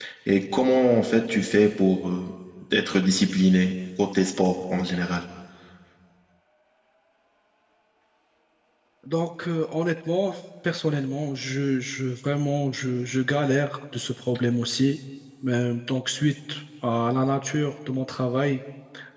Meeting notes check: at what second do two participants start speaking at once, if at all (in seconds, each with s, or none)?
none